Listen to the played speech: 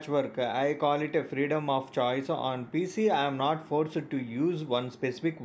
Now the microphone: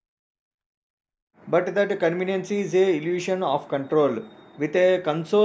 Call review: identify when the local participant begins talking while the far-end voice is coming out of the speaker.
1 s

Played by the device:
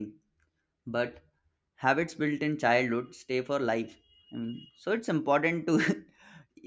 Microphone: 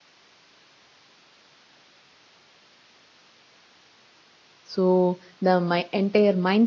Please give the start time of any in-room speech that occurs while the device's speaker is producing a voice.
5 s

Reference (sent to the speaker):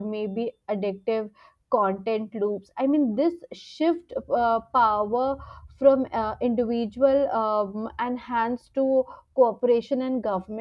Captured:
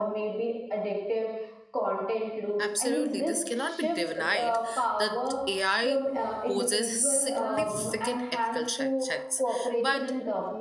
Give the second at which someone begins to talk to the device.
3 s

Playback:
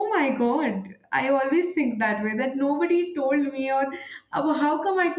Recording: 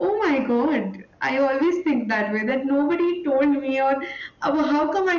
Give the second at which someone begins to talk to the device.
none

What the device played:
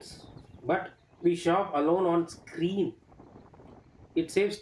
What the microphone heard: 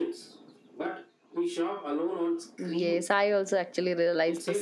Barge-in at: 3 s

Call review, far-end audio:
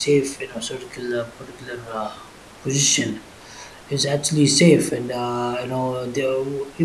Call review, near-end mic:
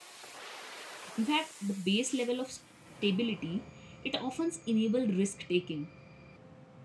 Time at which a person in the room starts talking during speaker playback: 1 s

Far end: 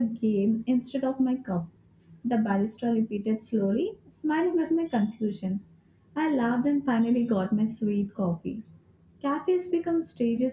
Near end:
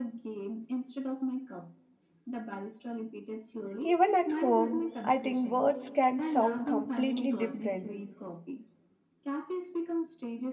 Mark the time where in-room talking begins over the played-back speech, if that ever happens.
4 s

